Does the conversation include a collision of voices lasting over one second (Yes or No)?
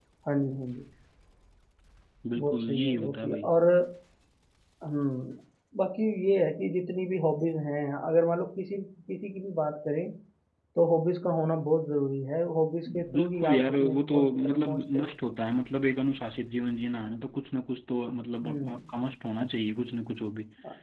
Yes